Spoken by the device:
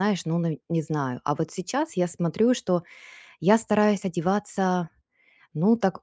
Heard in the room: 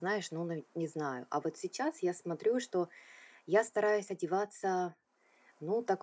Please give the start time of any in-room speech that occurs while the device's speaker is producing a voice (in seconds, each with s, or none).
none